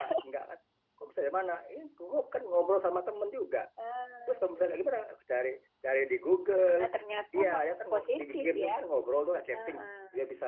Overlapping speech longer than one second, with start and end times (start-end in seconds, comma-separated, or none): 7.3-8.7